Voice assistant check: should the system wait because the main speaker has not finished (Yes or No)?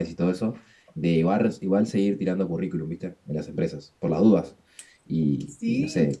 Yes